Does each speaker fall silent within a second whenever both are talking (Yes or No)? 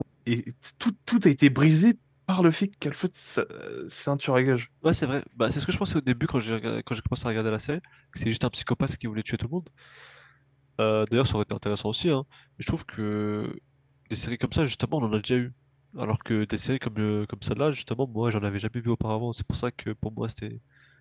Yes